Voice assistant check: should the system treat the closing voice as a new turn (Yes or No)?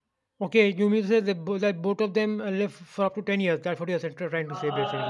Yes